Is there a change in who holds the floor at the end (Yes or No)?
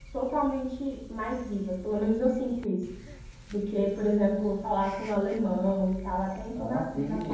Yes